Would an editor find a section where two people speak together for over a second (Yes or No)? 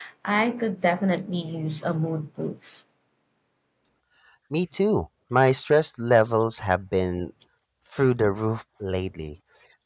No